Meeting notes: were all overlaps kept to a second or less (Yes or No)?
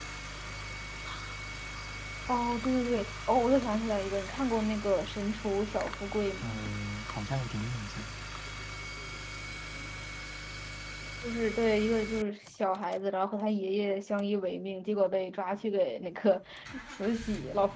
Yes